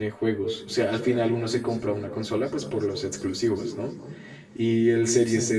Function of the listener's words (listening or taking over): listening